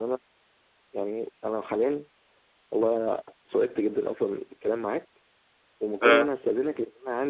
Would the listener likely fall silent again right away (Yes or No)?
Yes